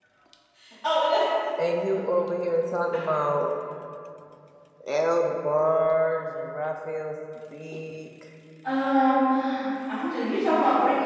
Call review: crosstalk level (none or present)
none